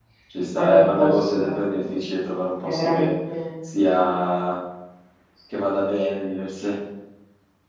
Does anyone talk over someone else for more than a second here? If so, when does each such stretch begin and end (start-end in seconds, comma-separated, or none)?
0.5-2.0